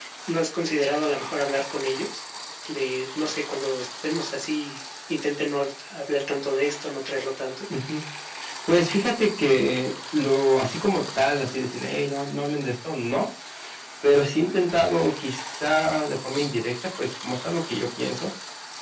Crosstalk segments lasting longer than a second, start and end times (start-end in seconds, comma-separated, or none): none